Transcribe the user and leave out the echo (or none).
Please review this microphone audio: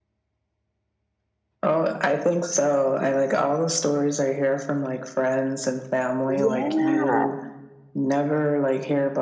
Yeah,